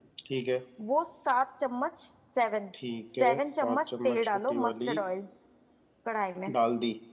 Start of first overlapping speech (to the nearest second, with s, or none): 3 s